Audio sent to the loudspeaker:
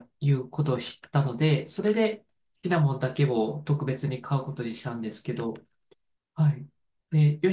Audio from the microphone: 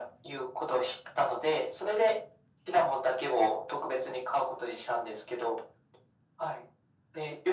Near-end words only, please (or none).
none